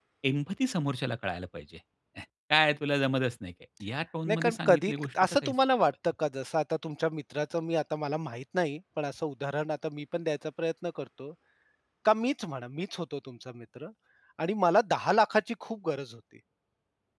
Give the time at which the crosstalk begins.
4.3 s

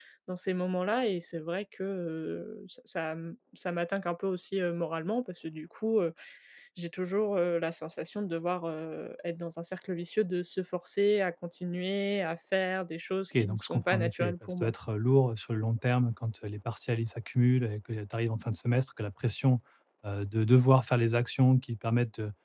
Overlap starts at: 13.3 s

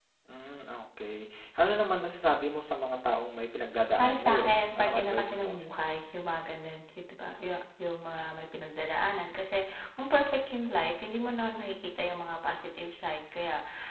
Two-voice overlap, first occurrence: 4.0 s

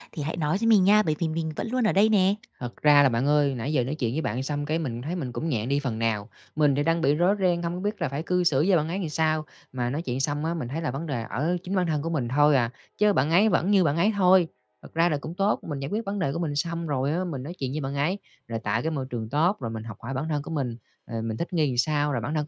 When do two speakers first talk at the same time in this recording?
none

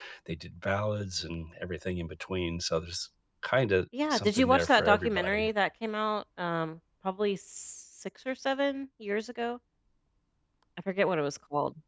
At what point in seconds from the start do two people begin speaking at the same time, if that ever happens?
4.1 s

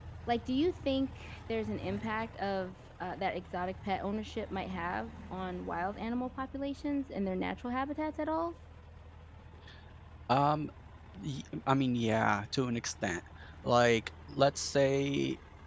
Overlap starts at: none

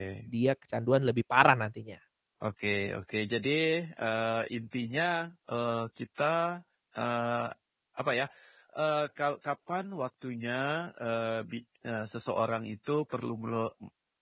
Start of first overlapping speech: none

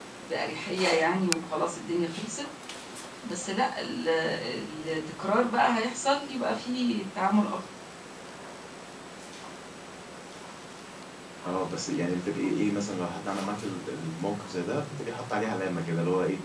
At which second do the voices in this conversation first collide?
none

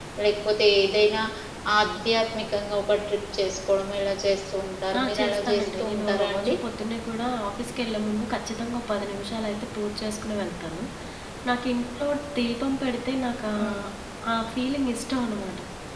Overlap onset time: 4.9 s

